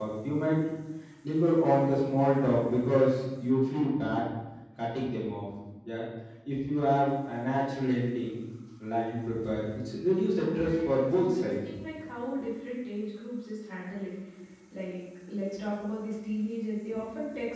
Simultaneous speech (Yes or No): Yes